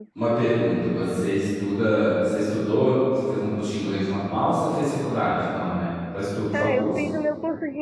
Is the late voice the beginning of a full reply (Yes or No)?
Yes